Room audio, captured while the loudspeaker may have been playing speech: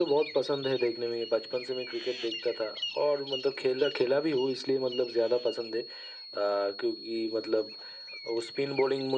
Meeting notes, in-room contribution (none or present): none